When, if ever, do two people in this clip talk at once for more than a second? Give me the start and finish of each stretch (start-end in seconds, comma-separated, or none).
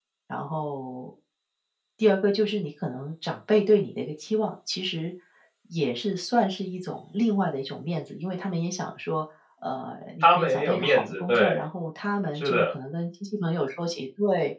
10.2-11.6